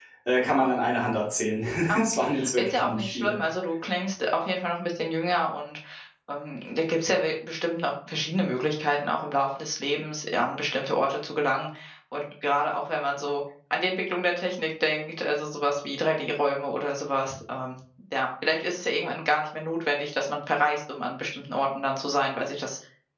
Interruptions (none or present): present